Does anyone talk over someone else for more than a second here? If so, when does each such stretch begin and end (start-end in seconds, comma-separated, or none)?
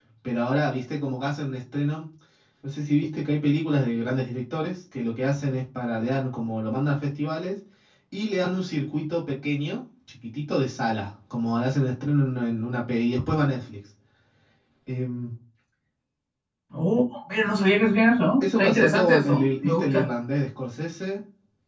18.4-20.1